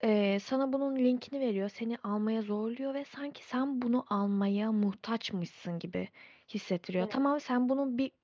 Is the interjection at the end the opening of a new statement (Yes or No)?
No